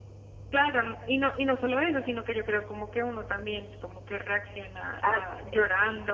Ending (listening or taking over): taking over